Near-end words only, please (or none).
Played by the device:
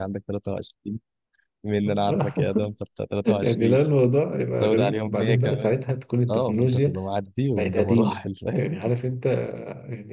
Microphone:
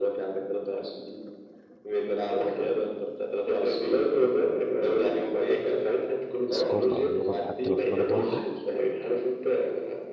الثقافه او اللغه حتى لو في بلد واحده